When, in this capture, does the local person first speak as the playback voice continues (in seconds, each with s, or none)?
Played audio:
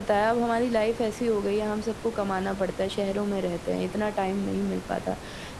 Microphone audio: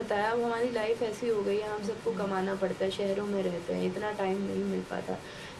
1.8 s